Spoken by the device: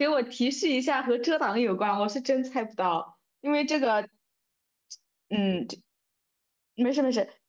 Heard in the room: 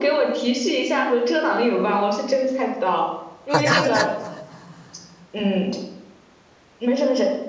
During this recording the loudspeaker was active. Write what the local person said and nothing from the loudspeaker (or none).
好的好的，